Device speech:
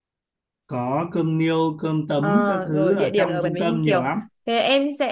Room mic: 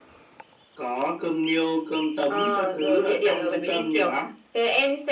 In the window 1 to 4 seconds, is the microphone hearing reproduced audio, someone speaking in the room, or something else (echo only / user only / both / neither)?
echo only